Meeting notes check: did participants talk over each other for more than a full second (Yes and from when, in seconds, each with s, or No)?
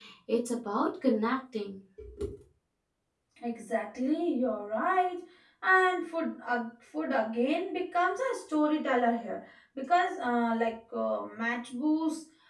No